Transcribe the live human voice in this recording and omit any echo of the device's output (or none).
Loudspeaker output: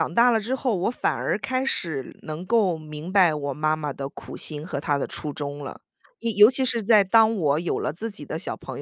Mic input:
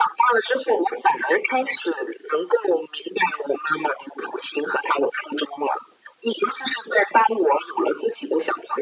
none